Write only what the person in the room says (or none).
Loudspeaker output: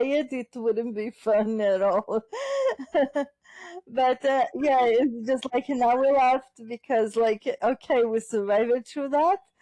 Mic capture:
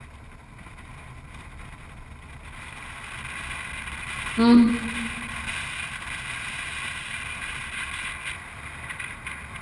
Mm.